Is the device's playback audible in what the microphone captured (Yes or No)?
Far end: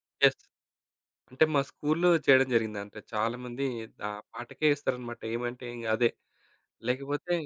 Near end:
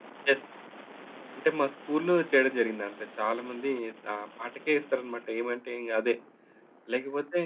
Yes